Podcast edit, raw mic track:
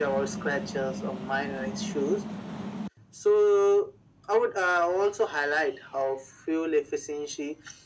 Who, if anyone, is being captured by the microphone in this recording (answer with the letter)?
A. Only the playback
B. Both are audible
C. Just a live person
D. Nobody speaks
A